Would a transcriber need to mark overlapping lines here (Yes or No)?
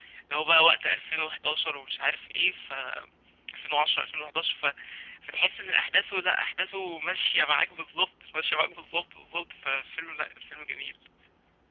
No